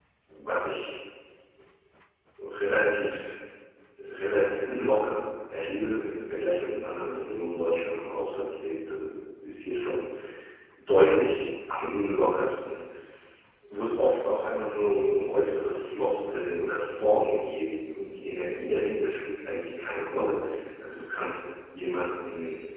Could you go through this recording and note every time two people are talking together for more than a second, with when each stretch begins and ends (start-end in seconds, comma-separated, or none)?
none